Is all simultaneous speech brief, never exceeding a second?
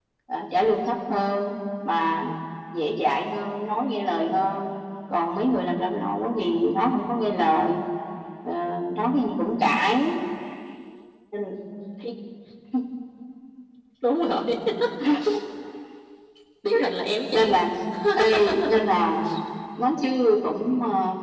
Yes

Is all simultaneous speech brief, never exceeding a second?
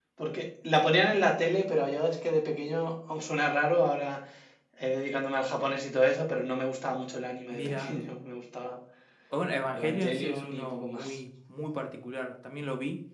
No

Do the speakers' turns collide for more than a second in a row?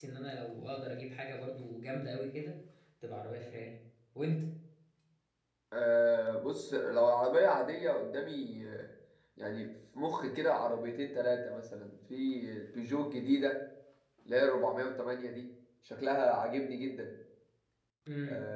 No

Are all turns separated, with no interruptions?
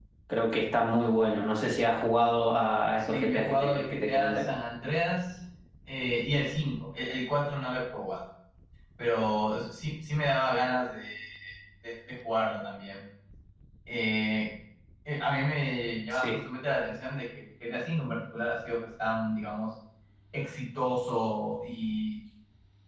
No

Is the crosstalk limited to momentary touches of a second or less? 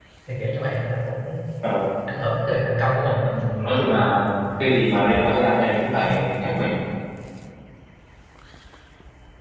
Yes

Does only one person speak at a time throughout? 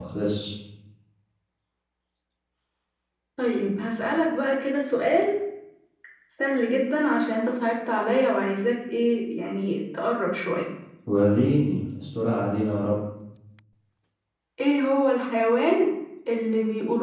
Yes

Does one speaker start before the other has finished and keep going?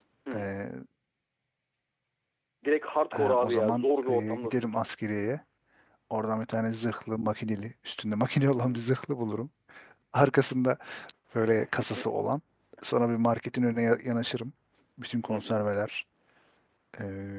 Yes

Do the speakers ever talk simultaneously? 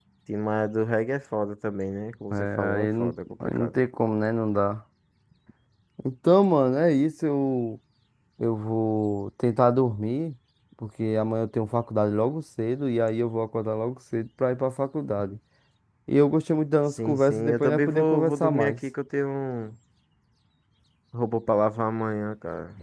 Yes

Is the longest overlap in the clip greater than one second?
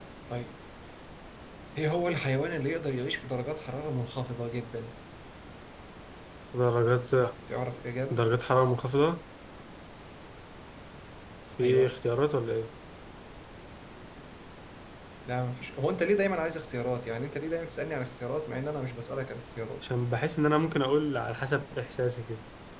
No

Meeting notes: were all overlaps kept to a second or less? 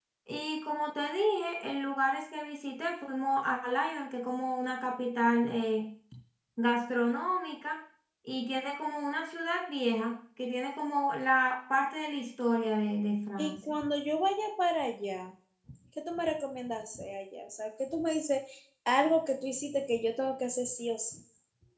Yes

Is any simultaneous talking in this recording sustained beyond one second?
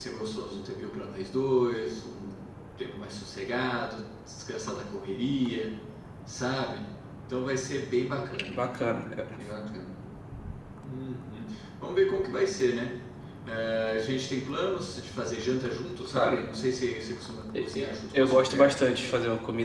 Yes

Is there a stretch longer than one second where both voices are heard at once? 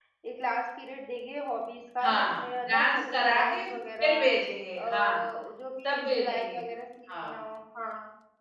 Yes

